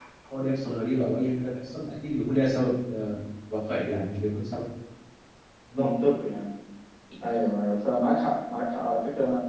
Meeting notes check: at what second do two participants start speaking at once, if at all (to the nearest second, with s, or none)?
none